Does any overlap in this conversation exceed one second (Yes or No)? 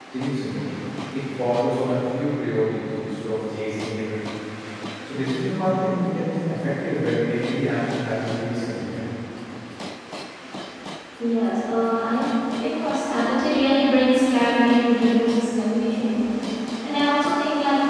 No